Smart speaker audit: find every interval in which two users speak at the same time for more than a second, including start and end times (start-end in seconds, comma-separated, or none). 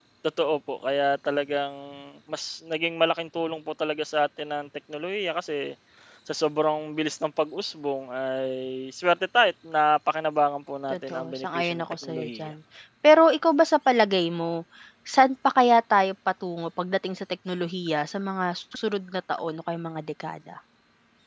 10.9-12.5